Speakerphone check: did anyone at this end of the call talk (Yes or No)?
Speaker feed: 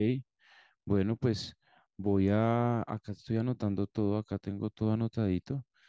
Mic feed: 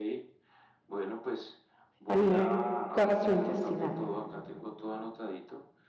Yes